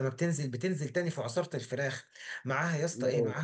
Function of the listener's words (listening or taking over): listening